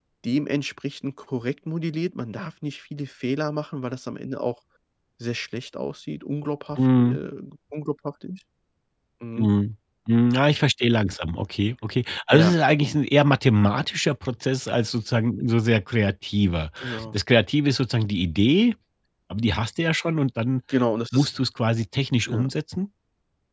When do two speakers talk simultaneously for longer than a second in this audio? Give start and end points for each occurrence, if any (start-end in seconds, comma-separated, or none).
none